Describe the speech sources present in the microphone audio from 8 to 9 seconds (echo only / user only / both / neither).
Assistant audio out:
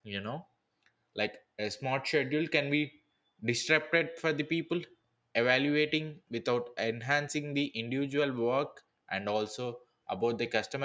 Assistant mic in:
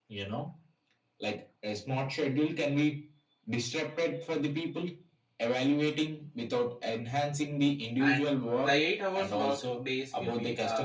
both